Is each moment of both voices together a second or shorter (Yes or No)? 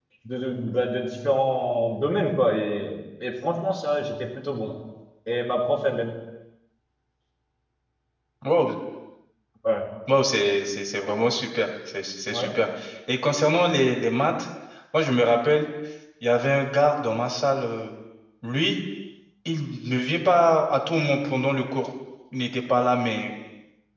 Yes